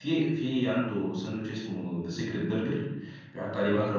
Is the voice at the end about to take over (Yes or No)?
No